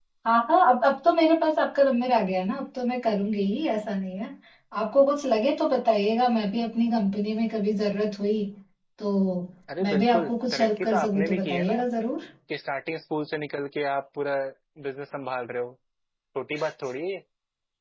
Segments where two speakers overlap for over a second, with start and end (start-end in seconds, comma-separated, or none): 9.8-11.8